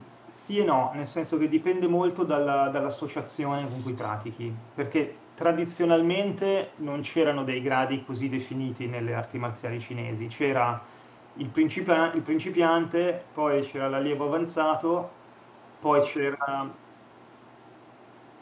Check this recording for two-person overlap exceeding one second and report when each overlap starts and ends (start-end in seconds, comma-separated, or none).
none